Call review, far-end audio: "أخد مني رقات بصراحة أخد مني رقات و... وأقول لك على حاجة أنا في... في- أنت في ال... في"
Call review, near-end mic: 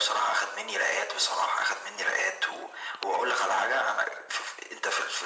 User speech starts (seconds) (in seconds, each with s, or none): none